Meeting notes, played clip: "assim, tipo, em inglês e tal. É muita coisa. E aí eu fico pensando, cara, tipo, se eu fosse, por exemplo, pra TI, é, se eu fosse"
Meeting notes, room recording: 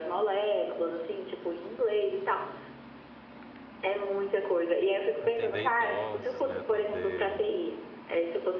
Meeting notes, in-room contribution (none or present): present